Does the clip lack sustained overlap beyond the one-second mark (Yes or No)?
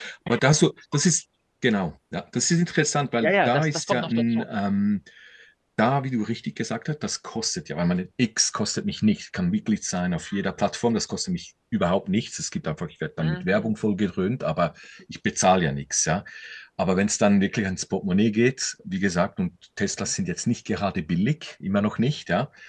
No